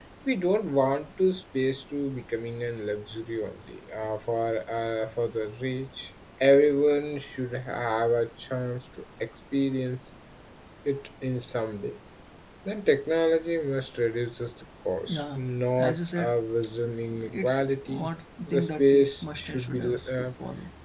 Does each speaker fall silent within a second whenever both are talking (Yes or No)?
No